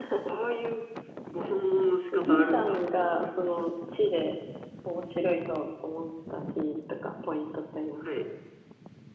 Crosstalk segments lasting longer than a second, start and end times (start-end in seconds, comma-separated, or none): 2.1-3.7